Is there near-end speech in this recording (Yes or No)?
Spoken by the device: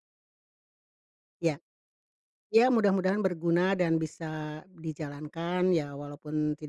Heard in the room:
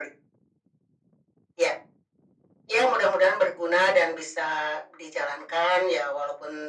No